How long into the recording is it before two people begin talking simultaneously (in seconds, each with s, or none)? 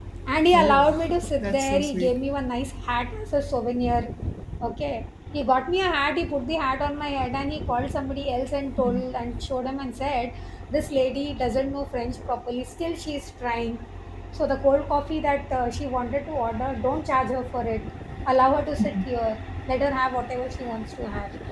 0.5 s